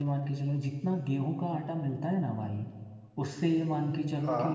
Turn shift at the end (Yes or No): No